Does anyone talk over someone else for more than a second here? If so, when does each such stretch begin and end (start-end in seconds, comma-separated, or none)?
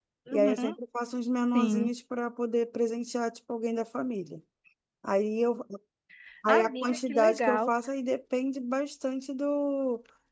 6.5-7.7